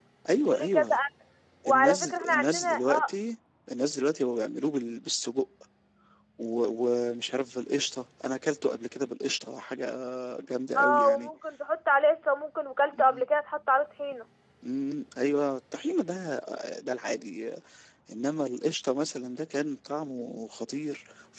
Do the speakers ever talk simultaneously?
Yes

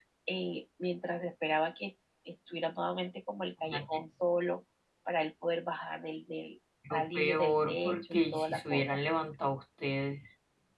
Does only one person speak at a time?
No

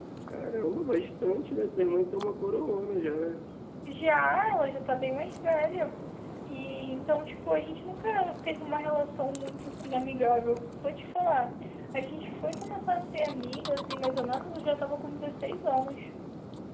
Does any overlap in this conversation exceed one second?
No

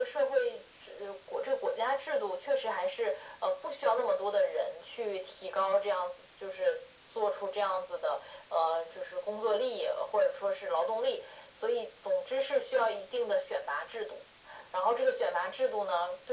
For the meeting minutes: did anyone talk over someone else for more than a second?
No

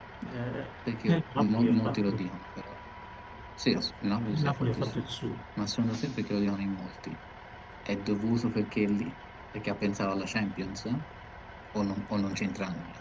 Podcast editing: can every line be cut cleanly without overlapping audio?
No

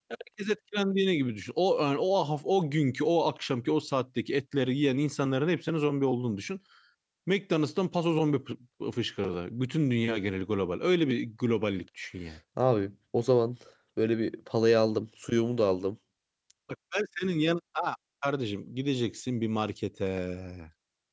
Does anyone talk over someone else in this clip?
No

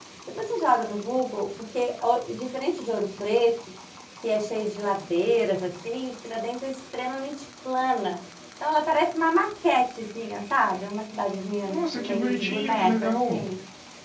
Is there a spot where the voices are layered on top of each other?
Yes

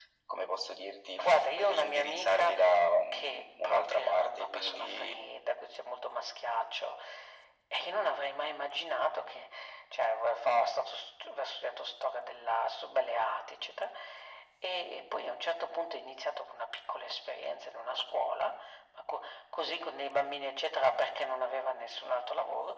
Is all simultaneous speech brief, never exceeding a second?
No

